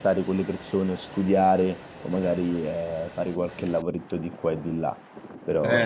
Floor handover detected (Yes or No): Yes